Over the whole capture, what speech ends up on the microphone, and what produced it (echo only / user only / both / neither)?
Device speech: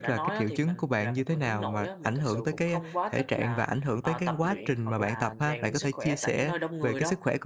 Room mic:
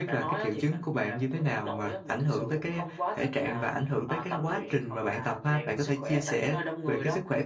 echo only